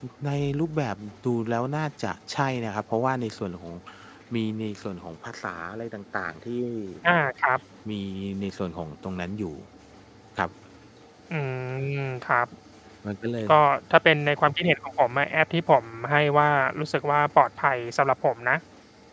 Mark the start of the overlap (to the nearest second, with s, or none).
none